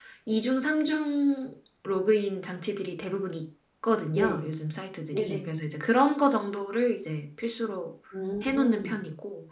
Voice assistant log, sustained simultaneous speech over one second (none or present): none